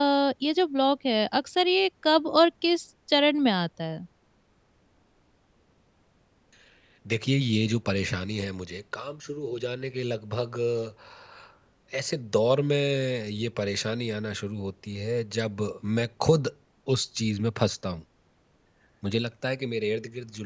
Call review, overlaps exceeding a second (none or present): none